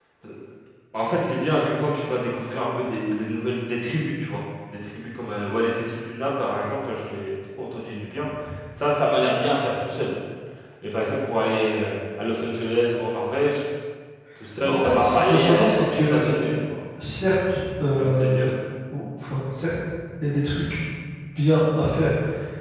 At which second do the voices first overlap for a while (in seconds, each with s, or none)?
14.6 s